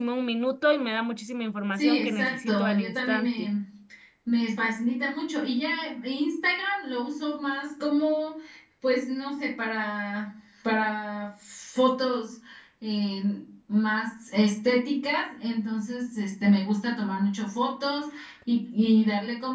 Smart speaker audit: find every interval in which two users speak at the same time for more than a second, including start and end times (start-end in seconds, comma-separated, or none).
1.8-3.5